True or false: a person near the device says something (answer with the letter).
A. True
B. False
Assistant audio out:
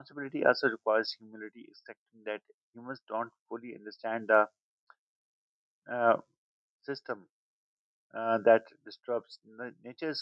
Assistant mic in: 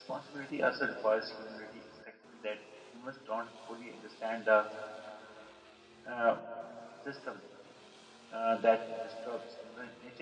B